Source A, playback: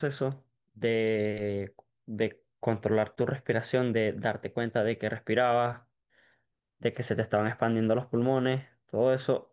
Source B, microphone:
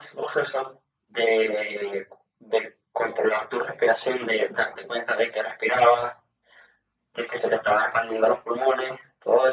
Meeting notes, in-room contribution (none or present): none